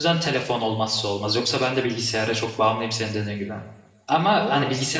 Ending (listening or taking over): listening